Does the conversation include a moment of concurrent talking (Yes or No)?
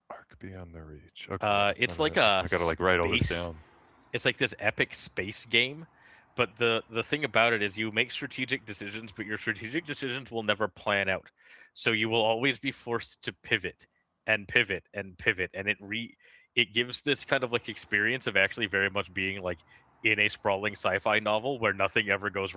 Yes